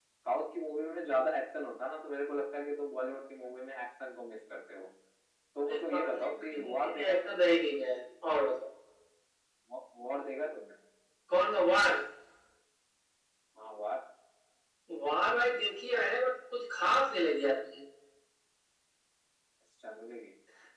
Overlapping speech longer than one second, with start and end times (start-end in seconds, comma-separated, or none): 5.7-7.4